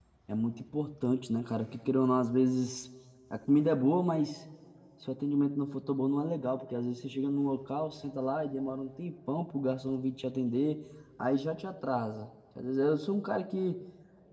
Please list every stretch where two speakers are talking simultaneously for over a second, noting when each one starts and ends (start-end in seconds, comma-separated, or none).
none